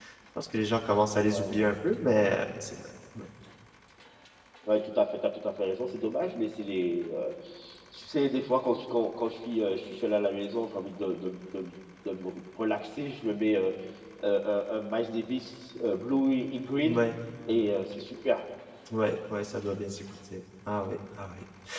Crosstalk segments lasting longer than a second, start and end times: none

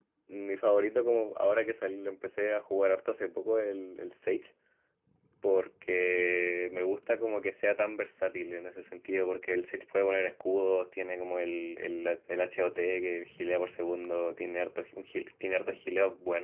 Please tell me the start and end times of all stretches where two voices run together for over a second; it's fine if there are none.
none

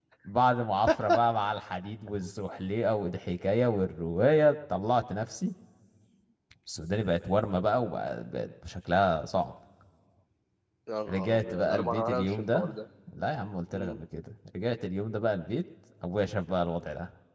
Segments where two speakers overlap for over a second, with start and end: 11.1-12.8

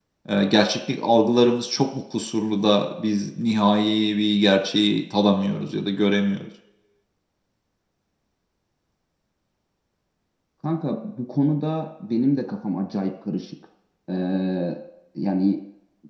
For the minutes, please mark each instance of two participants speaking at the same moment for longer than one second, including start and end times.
none

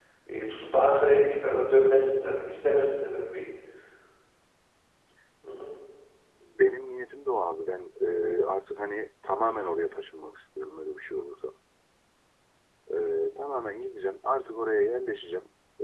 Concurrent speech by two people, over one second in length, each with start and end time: none

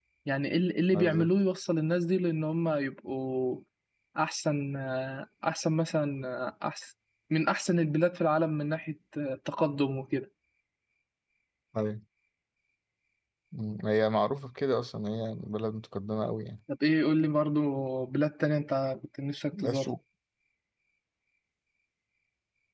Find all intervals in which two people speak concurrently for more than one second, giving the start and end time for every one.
none

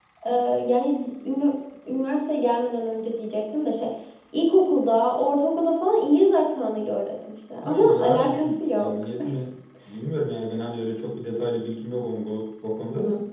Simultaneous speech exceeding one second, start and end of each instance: 7.6-8.9

